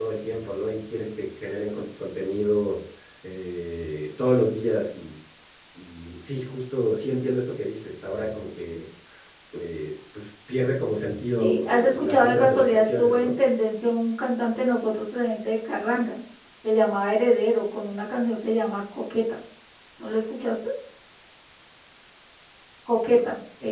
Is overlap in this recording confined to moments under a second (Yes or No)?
No